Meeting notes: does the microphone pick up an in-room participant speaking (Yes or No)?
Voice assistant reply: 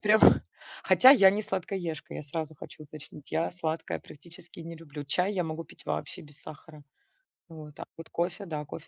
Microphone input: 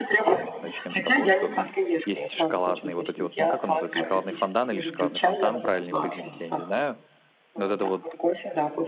Yes